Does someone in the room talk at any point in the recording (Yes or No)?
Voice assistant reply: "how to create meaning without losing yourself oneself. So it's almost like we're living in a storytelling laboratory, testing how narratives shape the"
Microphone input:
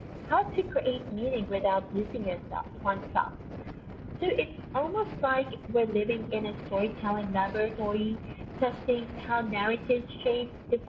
No